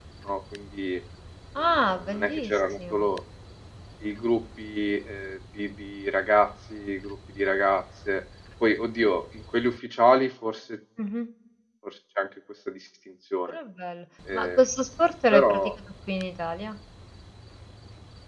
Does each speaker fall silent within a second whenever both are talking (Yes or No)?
No